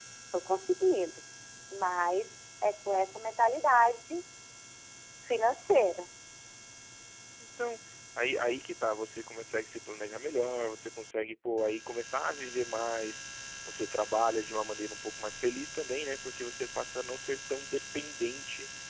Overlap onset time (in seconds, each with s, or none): none